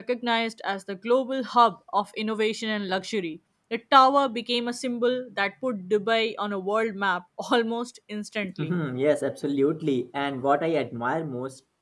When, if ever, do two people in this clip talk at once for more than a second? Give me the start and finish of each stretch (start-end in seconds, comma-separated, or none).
none